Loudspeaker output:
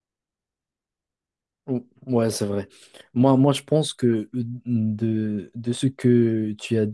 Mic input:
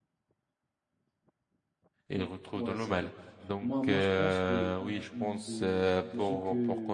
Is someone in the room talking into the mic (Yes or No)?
Yes